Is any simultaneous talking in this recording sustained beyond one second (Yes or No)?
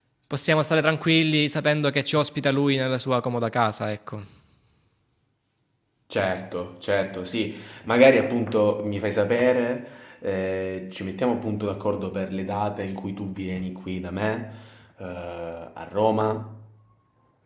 No